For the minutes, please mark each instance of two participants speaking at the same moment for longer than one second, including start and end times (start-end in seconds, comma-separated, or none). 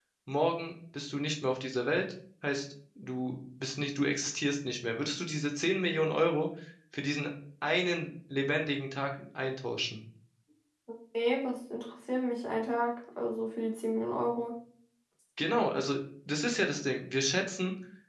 none